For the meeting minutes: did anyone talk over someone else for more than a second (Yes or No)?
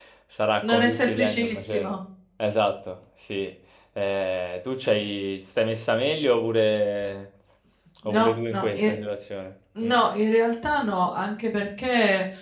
Yes